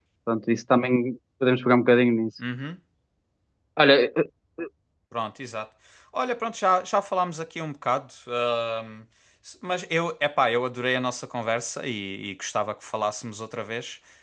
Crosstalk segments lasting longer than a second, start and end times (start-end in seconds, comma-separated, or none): none